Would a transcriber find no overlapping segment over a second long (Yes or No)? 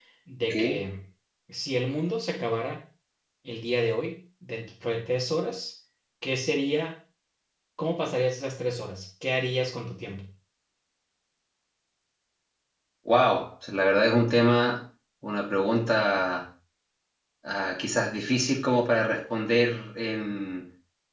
Yes